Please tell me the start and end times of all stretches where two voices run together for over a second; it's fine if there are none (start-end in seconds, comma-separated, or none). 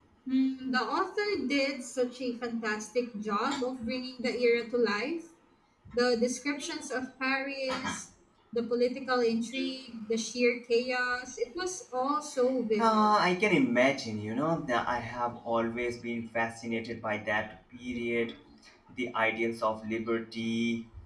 none